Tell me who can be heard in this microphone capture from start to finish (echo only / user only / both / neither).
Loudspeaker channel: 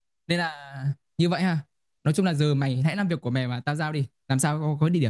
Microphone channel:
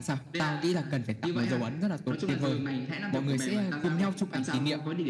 both